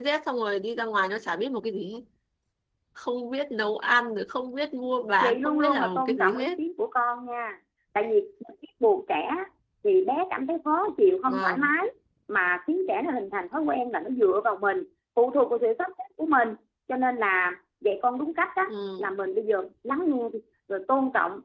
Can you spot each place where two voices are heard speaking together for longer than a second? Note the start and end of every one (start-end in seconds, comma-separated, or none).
5.2-6.6